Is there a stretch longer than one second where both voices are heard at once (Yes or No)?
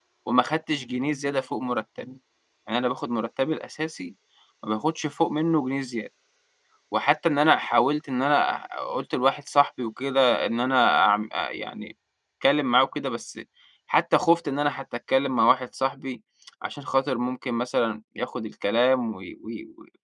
No